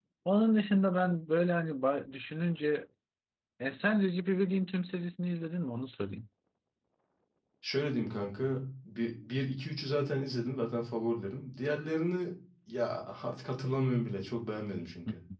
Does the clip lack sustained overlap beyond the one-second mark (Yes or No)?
Yes